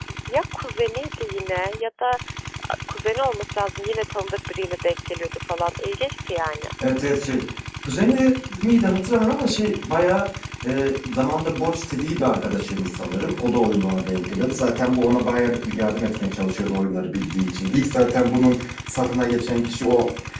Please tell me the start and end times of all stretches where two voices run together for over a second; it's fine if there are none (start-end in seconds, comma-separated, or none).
none